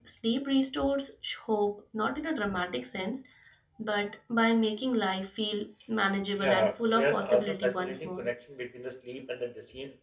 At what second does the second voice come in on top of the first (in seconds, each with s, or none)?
6.4 s